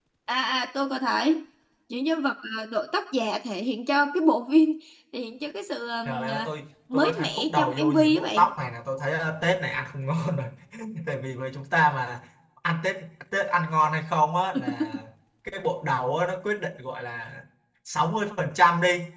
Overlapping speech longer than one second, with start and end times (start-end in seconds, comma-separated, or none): 6.9-8.5